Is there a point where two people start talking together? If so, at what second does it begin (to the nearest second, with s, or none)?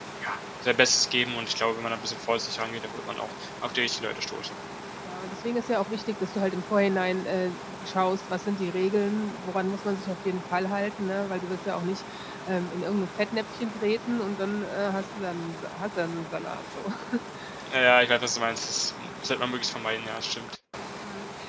none